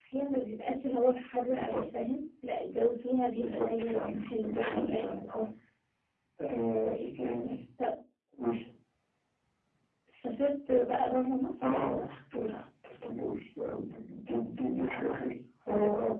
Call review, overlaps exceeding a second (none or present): present